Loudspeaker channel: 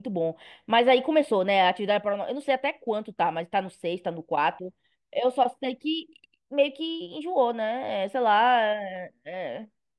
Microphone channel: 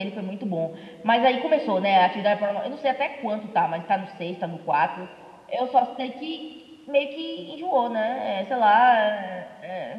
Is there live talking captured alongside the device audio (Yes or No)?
No